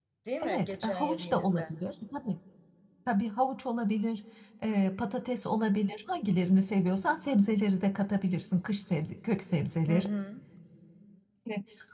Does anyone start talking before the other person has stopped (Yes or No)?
Yes